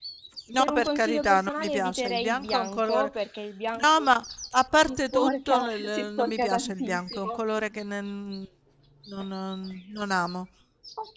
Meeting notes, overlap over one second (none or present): present